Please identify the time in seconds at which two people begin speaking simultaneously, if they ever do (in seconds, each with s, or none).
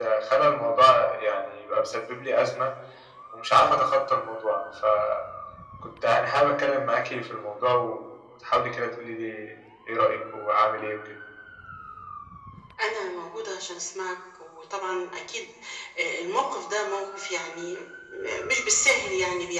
none